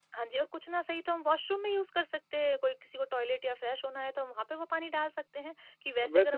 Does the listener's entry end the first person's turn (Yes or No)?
Yes